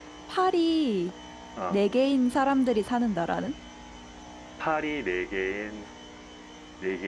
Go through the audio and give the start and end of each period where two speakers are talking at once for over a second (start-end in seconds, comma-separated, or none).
none